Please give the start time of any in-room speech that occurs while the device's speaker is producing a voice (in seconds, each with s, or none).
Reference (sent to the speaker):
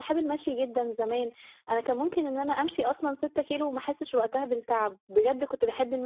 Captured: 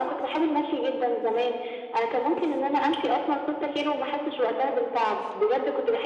none